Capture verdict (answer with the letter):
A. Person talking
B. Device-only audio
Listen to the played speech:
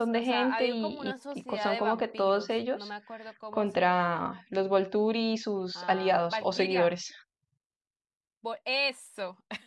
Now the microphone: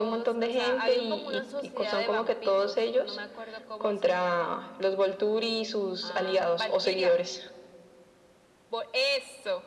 B